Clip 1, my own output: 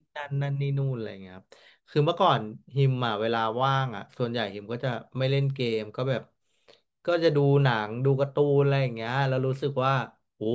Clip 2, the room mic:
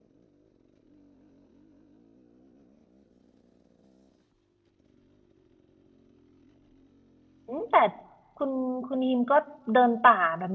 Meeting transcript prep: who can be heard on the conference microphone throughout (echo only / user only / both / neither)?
user only